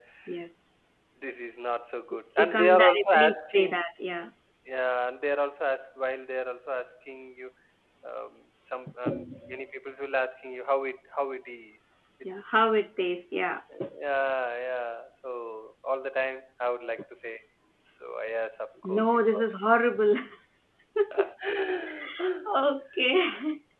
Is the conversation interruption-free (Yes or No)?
No